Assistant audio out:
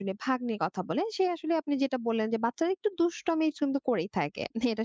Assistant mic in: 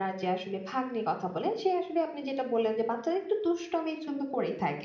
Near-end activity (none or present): none